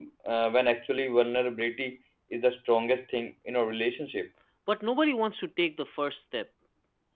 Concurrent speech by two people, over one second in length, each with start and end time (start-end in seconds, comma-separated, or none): none